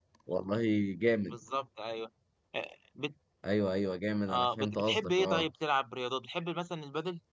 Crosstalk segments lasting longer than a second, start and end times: 4.3-5.5

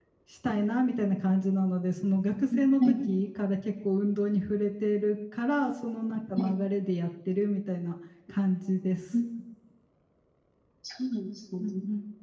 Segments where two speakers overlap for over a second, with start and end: none

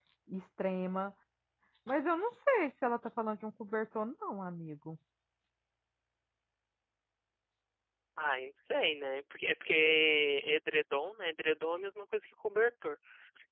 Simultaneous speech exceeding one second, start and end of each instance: none

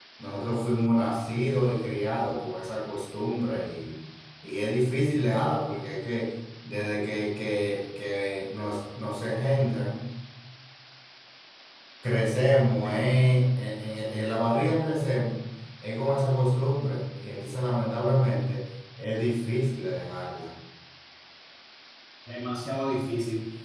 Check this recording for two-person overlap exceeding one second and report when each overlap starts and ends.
none

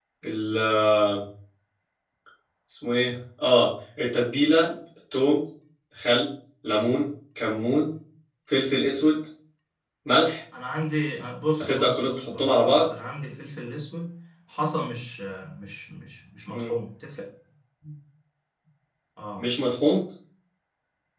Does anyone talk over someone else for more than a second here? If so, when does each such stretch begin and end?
11.6-12.9

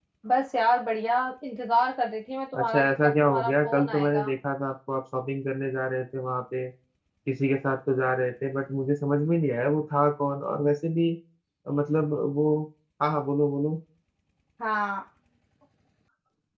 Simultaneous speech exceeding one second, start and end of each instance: 2.6-4.3

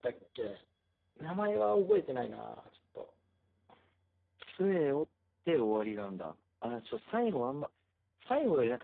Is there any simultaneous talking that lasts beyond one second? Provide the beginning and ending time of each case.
none

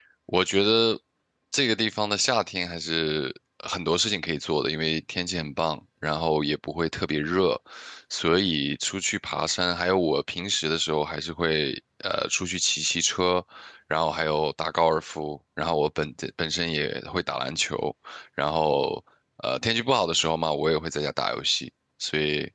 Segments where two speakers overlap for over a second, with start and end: none

